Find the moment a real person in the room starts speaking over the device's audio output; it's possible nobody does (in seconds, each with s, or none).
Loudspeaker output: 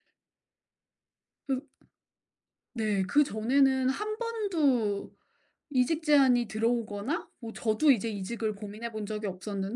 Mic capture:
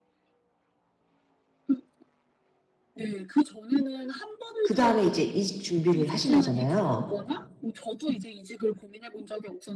4.6 s